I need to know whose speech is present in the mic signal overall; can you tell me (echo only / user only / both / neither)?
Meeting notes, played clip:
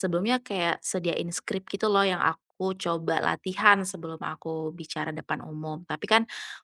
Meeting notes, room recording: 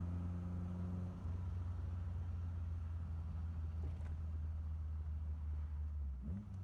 neither